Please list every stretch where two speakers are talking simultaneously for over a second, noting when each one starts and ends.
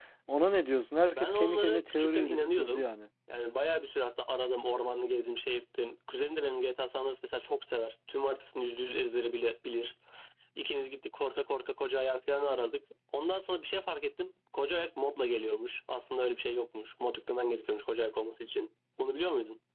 1.2-2.8

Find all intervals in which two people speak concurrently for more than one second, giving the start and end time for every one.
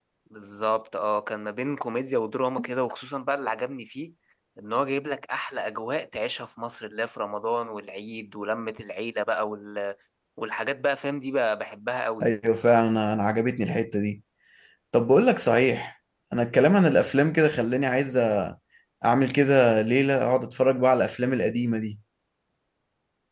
none

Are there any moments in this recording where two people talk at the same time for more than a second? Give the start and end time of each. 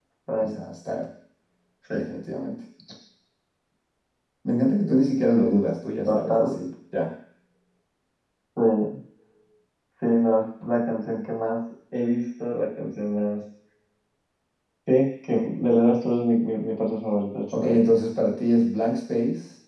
none

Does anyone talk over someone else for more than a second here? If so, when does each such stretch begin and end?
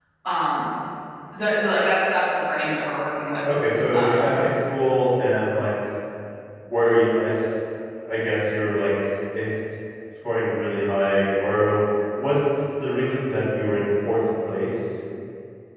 none

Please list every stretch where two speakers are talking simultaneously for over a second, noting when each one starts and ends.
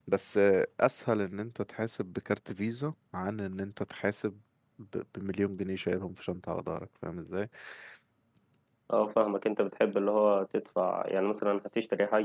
none

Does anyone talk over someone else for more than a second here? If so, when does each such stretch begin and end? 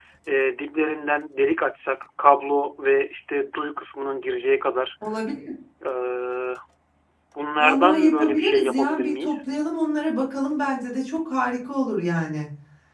7.6-9.3

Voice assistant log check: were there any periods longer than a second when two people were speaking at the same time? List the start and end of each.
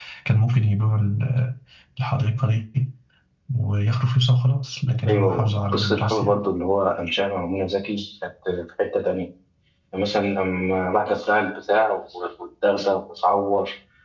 5.1-6.4

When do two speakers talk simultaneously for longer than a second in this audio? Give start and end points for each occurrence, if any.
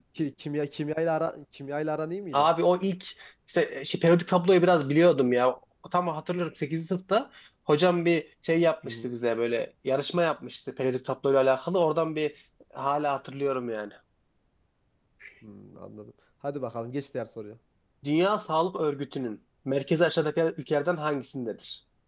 none

